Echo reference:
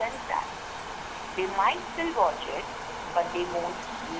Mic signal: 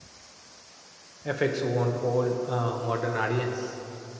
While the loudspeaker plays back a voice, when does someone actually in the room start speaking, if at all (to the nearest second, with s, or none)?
1 s